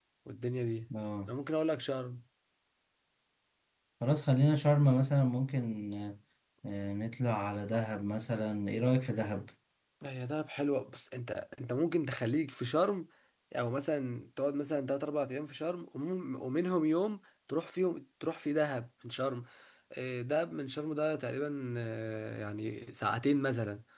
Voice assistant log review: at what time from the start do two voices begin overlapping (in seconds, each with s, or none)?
none